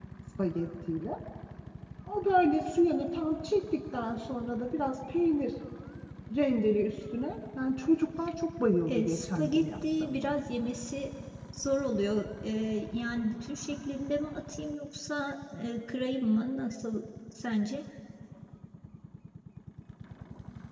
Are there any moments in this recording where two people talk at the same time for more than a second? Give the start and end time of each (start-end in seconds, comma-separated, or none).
8.9-10.3